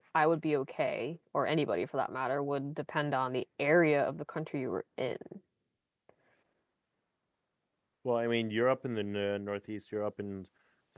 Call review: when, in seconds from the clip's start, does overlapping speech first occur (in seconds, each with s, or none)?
none